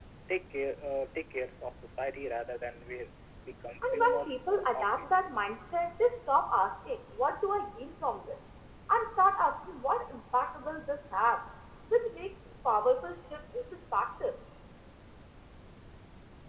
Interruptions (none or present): present